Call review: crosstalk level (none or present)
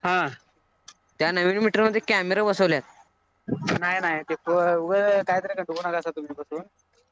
none